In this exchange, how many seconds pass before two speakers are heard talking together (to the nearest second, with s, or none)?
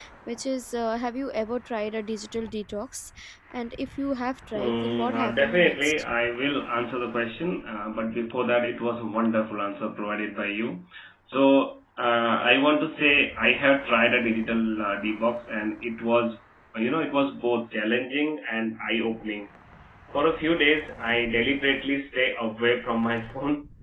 5 s